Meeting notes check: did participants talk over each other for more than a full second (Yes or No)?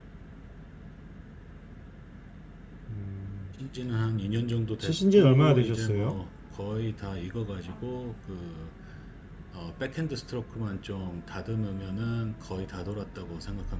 Yes